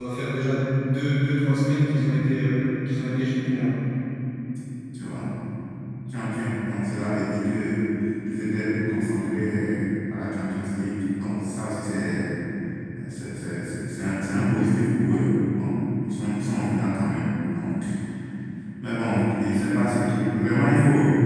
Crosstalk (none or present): none